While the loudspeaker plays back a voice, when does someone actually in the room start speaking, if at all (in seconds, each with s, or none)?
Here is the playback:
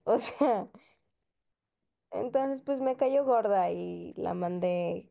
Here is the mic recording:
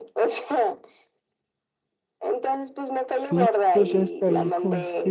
3.2 s